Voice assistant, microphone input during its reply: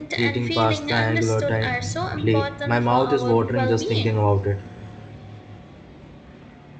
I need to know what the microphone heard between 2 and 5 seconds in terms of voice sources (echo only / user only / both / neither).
both